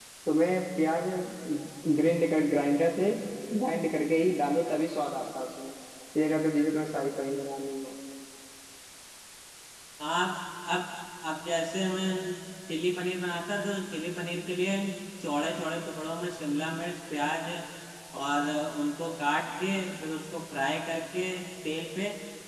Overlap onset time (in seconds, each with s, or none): none